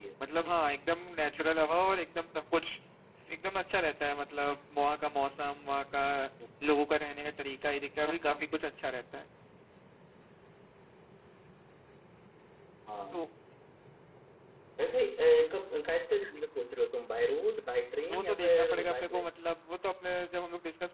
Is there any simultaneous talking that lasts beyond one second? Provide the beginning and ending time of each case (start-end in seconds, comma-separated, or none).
18.0-19.3